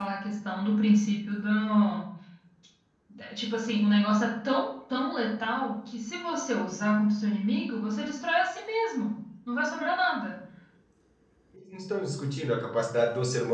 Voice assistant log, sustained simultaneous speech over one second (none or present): none